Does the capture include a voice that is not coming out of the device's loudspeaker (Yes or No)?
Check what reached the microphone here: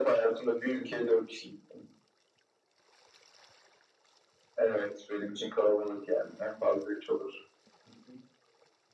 No